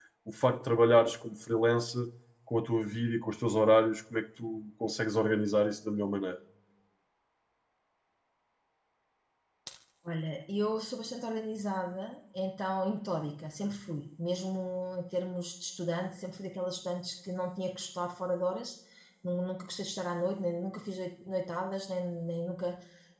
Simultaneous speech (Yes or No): No